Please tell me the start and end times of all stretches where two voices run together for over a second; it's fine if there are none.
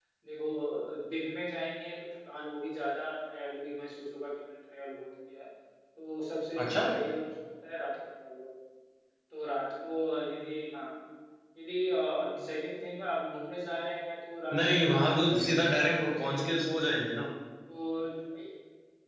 14.6-16.5

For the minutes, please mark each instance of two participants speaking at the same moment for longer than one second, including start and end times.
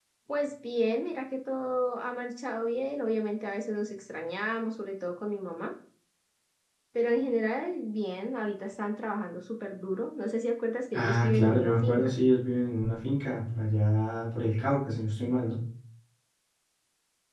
10.9-12.2

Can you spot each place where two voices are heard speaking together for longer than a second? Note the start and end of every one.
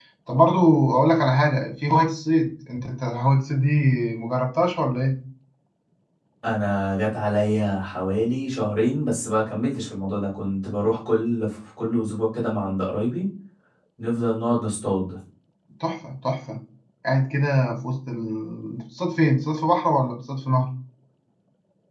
none

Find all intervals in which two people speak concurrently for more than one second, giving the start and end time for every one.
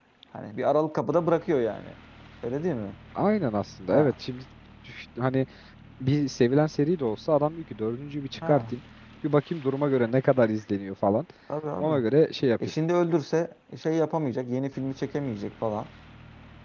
none

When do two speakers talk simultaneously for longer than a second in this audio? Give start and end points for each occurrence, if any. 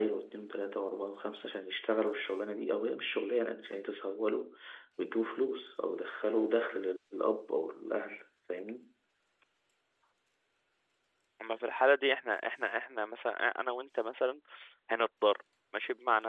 none

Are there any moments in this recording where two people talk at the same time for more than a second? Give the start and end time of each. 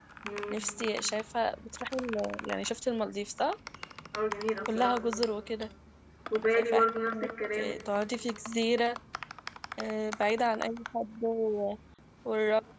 6.6-7.8

